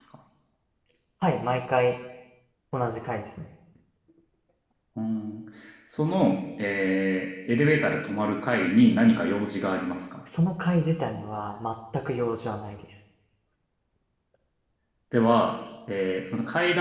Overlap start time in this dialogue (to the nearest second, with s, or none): none